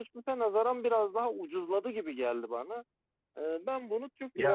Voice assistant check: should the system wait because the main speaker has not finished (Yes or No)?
Yes